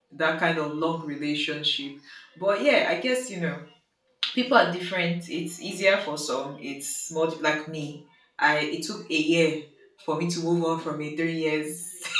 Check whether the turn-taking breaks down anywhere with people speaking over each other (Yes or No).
No